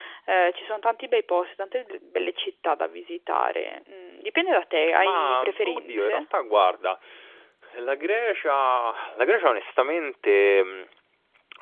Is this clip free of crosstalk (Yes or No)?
No